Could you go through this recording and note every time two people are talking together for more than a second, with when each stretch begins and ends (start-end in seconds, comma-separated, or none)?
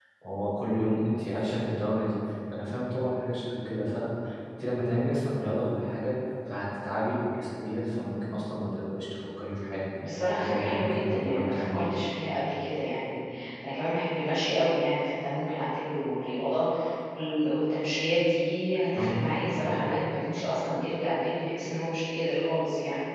10.4-11.9